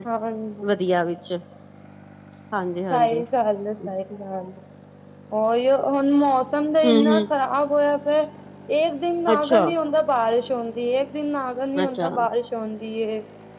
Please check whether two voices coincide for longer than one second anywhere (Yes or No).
No